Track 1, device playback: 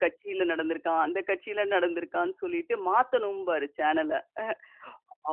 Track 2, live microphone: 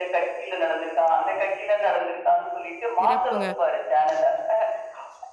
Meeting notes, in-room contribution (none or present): present